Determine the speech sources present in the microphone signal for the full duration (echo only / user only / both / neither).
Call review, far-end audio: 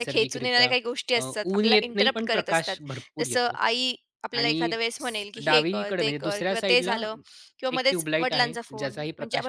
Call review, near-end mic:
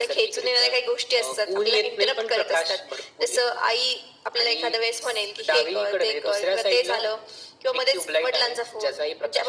echo only